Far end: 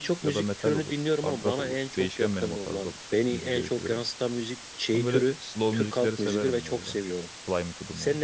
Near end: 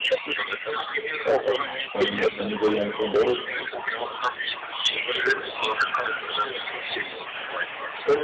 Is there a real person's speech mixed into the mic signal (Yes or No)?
Yes